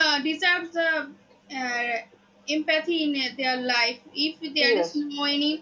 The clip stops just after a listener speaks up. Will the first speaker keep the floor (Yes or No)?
Yes